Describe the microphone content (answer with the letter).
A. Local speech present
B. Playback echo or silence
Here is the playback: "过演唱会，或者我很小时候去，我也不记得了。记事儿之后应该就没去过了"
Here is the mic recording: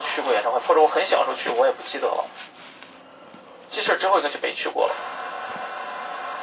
B